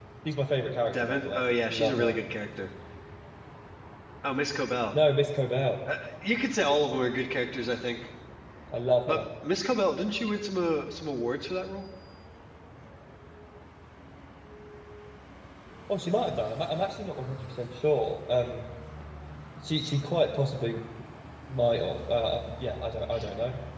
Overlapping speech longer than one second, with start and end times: 0.9-2.1

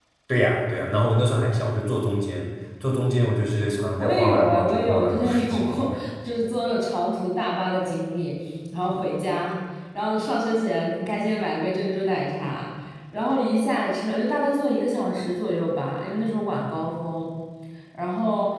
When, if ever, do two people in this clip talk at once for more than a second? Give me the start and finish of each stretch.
4.0-6.0

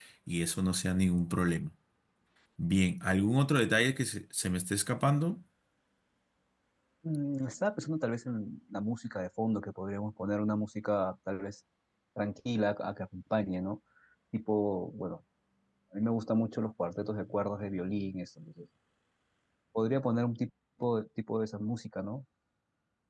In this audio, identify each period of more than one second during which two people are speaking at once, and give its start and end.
none

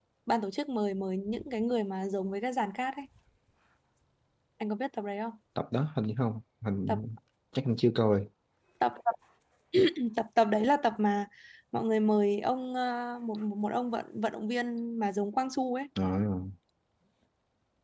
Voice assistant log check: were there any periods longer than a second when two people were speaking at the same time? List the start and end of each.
none

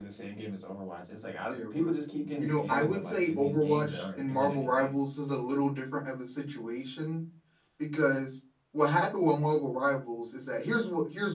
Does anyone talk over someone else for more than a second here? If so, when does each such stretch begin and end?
2.4-5.0

